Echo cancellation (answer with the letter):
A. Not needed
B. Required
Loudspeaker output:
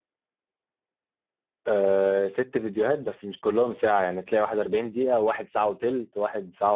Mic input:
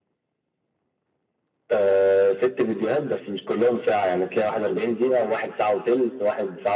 B